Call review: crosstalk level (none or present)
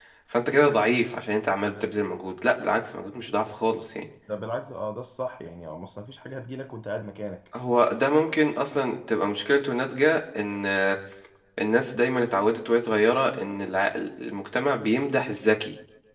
none